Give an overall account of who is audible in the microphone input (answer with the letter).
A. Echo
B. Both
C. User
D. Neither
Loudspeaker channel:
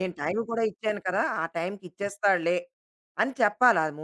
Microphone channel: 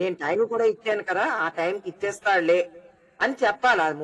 A